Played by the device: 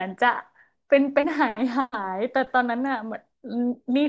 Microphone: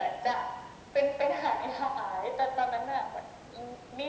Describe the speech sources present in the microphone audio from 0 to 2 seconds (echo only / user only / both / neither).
echo only